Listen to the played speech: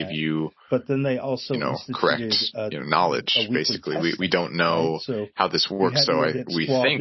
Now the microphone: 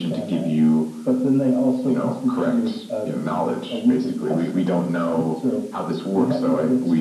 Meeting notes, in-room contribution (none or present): none